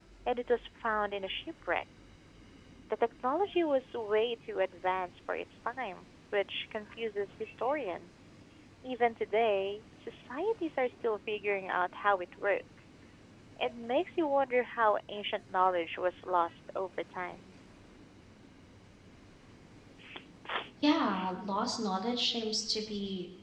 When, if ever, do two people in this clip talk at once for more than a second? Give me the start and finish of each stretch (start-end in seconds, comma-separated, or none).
none